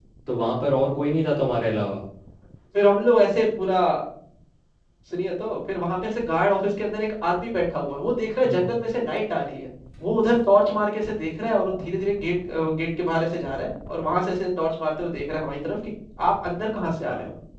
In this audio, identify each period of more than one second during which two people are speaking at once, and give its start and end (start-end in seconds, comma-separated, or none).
none